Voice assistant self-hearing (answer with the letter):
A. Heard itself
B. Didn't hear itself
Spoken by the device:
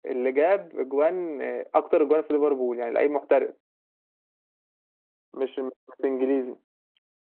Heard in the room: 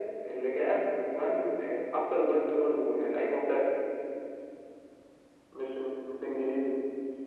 A